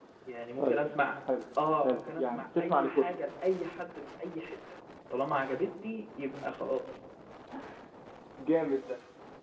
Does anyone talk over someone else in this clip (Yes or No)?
Yes